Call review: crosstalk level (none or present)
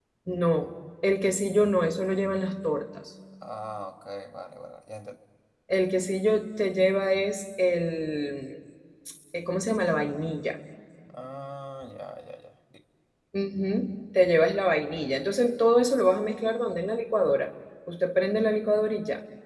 none